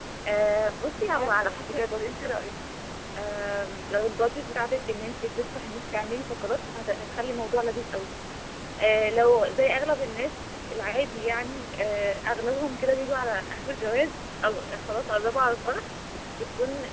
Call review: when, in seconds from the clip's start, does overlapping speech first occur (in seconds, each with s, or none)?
1.0 s